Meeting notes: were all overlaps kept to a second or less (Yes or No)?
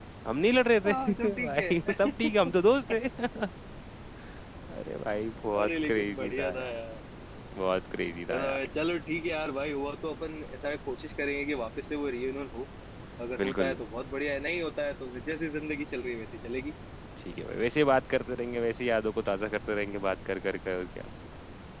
No